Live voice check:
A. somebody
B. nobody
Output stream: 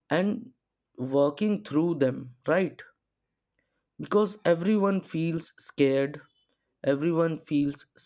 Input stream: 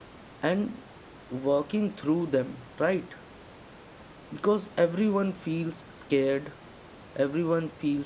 B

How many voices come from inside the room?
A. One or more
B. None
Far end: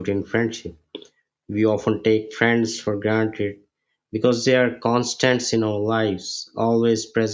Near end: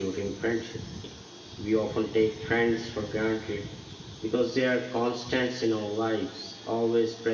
B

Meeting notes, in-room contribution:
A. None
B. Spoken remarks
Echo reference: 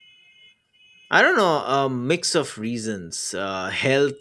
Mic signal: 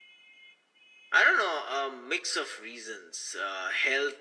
A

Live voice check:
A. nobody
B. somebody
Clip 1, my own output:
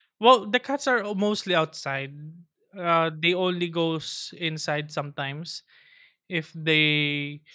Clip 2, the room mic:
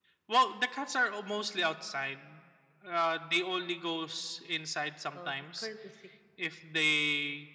B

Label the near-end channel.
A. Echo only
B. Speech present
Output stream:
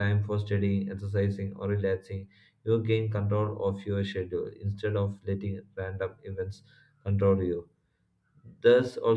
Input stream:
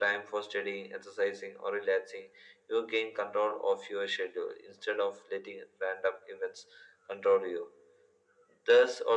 A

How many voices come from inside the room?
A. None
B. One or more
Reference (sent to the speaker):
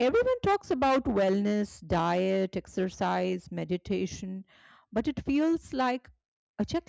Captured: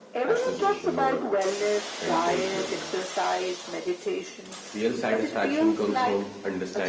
B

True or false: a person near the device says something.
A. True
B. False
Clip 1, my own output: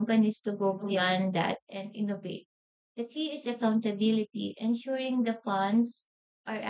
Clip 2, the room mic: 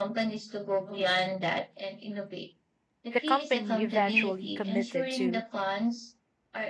A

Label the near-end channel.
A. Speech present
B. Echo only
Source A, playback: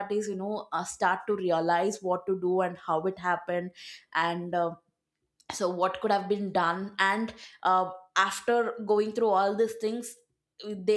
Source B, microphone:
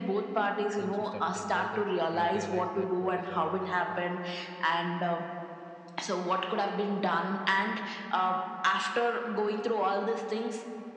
A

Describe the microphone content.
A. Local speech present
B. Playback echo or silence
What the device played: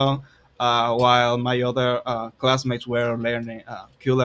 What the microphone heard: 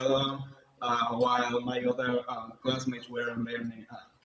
B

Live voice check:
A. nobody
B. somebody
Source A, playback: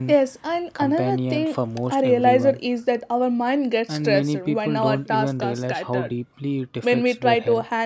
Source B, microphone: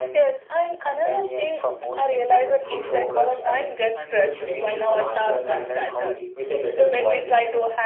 B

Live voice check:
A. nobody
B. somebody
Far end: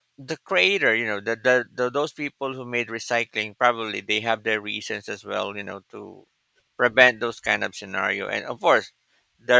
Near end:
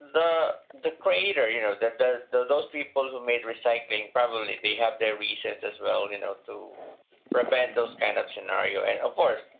A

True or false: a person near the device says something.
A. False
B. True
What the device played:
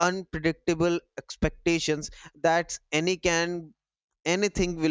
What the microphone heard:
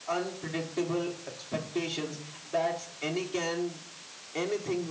A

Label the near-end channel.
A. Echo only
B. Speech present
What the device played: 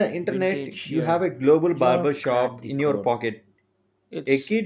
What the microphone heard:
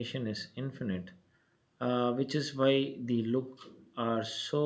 B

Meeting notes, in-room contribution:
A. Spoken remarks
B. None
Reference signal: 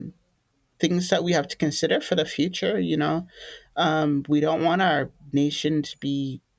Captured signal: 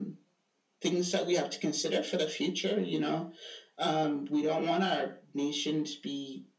B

